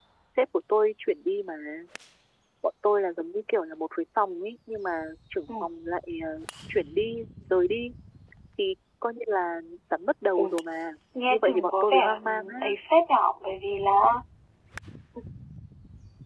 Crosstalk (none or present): present